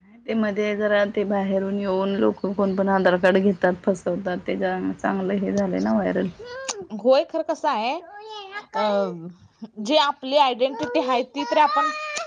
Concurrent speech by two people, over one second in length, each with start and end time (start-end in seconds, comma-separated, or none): none